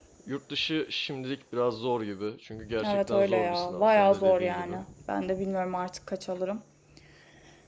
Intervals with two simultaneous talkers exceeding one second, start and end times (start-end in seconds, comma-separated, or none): 2.9-4.7